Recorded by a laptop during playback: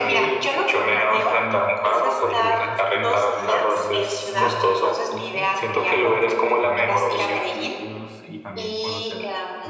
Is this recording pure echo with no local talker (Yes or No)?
No